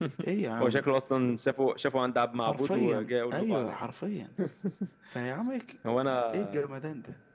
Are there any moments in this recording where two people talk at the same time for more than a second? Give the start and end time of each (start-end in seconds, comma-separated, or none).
2.5-3.8